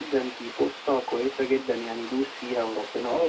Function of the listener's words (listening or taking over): taking over